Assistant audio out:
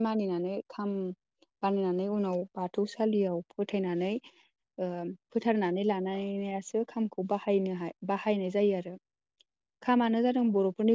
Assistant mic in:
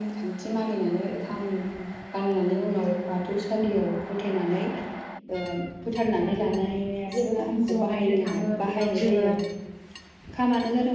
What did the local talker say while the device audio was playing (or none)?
जेब्ला हिनजाव नायनो थाङो बेयाव जोङो